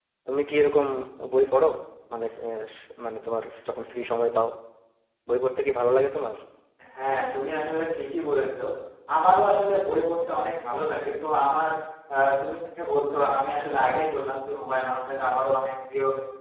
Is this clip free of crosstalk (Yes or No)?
Yes